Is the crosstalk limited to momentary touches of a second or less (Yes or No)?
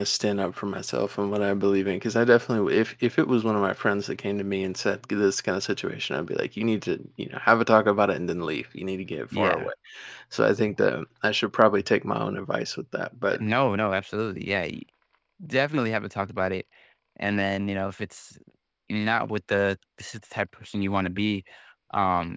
Yes